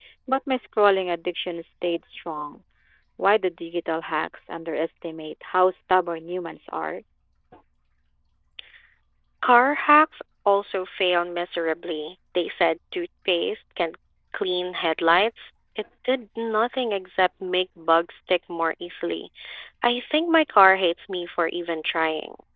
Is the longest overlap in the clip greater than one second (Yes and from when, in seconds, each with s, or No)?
No